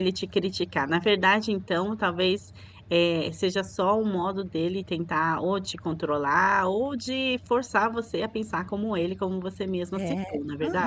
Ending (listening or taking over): taking over